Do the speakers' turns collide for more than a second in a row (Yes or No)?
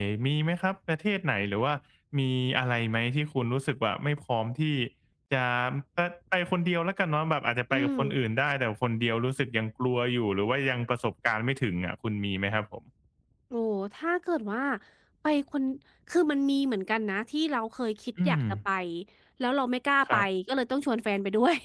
No